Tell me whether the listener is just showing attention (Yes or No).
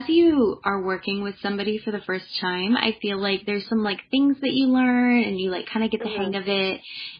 Yes